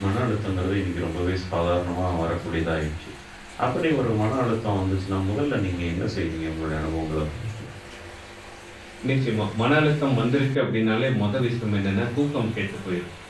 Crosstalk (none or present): none